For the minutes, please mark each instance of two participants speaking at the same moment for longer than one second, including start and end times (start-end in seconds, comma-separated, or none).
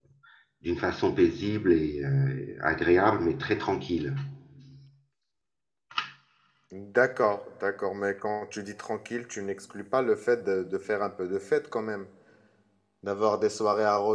none